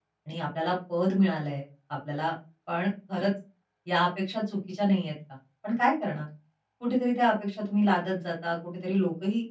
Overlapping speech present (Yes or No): No